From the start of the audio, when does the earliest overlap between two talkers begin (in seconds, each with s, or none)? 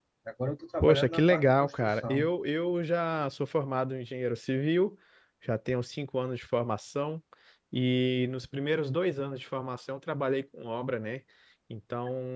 0.8 s